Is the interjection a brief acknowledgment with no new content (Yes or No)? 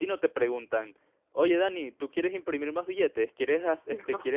Yes